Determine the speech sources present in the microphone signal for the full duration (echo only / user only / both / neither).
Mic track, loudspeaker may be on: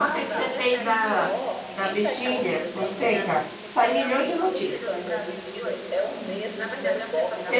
both